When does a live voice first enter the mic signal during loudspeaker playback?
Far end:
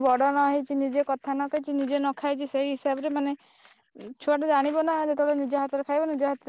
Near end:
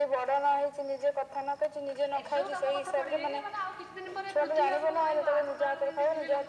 2.2 s

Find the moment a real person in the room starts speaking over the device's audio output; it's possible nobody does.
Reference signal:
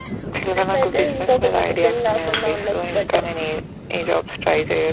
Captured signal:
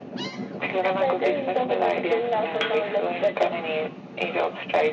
none

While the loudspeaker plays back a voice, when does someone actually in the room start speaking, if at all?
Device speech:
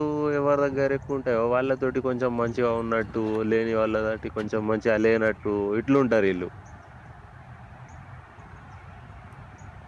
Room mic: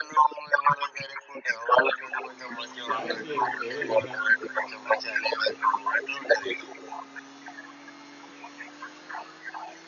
2.9 s

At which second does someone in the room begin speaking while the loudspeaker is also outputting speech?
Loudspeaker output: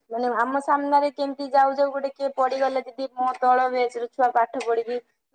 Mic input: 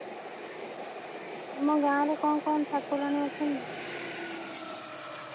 1.5 s

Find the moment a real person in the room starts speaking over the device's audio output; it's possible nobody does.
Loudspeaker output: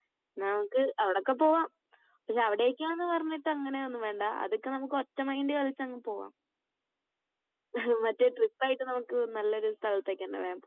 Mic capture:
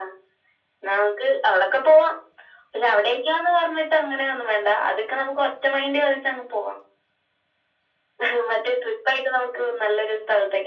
none

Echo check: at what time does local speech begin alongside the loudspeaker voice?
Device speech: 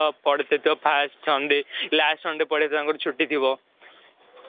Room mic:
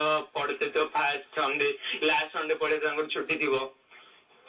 none

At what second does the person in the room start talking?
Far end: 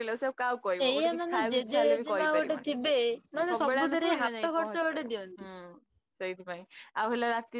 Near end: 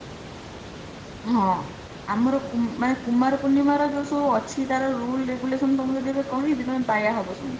1.3 s

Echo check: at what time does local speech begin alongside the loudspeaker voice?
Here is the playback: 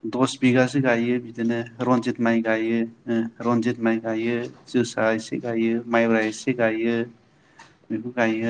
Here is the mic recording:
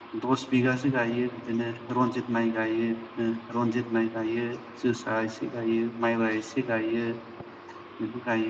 none

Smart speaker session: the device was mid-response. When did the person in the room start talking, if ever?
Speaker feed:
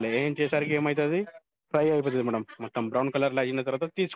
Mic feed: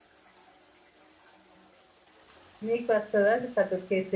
2.7 s

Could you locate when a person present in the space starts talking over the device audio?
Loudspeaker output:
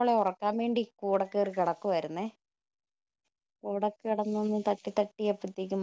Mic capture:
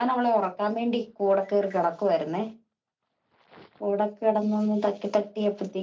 none

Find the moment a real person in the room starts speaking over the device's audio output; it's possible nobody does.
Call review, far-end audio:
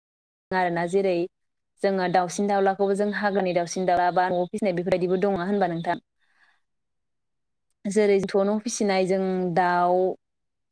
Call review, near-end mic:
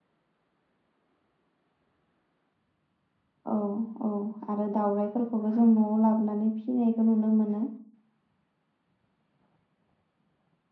3.5 s

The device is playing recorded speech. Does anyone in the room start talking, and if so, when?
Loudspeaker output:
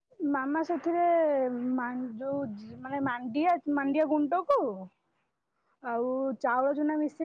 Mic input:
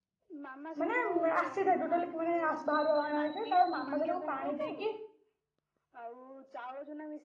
0.8 s

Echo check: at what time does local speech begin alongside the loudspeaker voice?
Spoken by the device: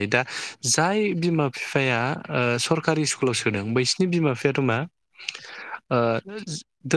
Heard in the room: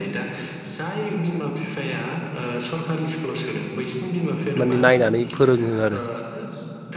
4.6 s

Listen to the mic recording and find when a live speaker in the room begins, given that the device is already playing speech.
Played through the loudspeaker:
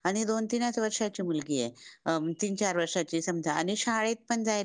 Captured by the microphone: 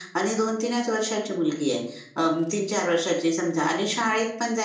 none

